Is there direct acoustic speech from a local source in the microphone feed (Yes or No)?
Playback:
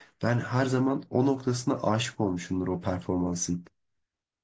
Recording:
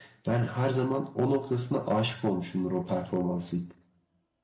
No